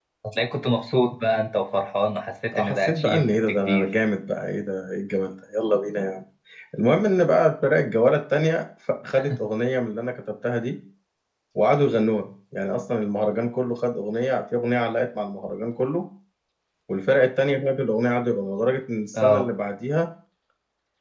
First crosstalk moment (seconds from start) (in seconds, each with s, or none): 2.5 s